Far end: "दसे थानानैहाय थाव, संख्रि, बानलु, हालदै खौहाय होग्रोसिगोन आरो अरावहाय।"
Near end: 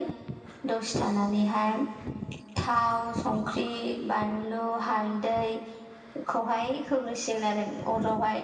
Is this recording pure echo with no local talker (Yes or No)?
Yes